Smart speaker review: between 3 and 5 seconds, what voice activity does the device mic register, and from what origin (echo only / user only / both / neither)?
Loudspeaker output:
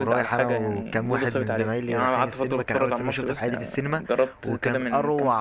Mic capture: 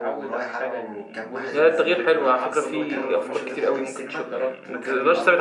both